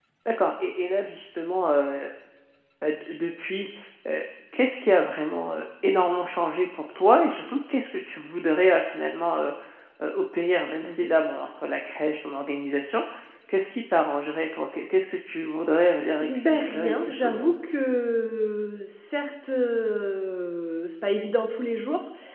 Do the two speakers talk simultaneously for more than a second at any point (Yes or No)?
Yes